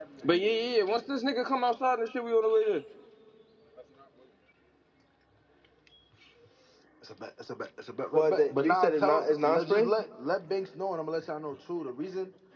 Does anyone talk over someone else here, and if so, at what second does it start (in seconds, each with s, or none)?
8.1 s